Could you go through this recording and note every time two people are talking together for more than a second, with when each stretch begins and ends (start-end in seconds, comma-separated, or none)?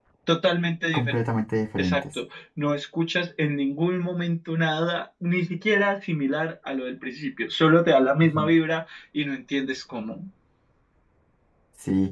none